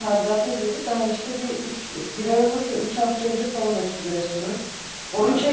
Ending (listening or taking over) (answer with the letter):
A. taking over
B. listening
B